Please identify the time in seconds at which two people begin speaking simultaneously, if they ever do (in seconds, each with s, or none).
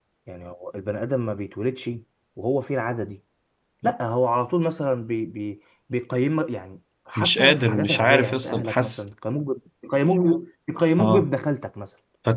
7.2 s